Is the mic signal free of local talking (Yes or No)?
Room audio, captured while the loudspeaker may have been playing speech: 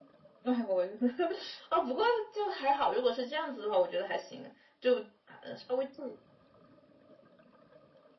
Yes